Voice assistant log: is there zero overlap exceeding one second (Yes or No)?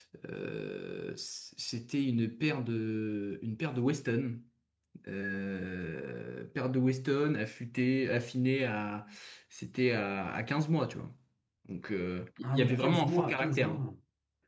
No